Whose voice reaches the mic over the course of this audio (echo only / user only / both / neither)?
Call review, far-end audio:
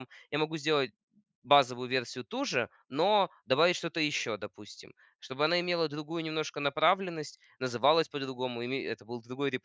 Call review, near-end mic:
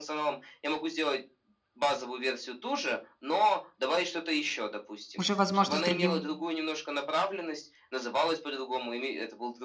both